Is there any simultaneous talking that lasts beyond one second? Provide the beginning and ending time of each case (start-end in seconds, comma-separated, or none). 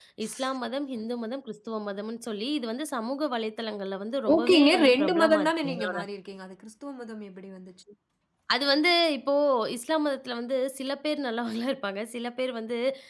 4.3-6.0